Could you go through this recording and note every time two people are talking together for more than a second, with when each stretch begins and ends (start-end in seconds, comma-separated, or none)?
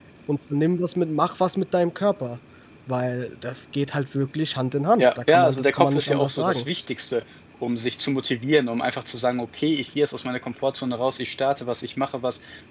5.0-6.7